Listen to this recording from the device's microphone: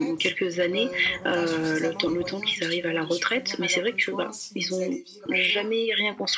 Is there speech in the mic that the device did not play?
Yes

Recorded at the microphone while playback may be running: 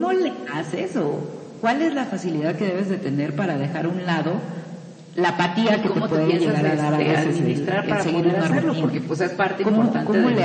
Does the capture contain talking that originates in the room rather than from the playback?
Yes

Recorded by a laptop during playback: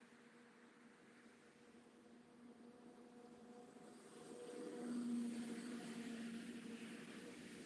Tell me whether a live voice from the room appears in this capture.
No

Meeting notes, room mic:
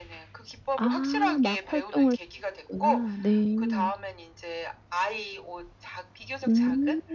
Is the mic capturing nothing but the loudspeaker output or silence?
No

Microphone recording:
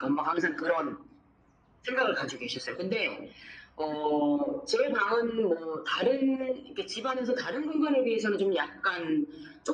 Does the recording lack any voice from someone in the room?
Yes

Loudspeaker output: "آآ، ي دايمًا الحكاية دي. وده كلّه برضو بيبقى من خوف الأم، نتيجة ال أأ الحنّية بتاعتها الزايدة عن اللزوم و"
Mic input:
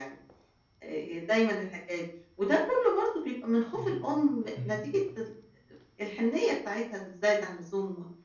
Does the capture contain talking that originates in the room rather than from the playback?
Yes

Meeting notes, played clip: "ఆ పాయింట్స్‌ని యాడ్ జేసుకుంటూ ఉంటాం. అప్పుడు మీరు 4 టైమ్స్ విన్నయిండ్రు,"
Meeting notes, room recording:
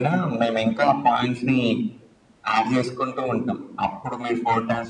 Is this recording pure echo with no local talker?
Yes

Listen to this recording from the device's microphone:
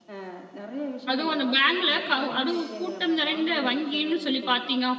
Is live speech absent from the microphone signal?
No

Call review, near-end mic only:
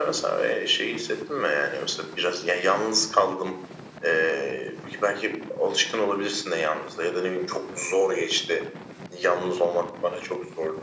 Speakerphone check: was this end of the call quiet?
Yes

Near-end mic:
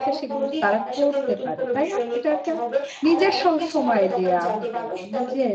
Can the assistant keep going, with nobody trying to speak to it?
No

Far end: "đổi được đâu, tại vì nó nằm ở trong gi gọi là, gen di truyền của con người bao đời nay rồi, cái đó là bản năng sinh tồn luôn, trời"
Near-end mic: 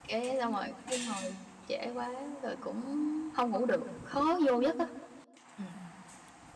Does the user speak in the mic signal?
Yes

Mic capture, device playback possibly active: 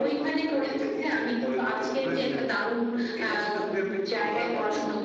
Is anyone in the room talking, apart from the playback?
Yes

